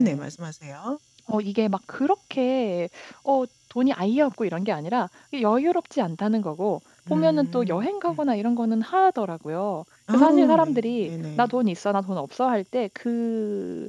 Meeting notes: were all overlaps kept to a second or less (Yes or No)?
No